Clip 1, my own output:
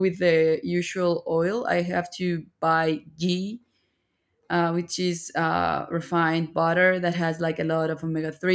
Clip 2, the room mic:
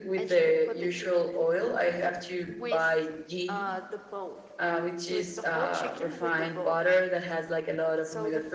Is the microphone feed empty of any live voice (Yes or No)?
No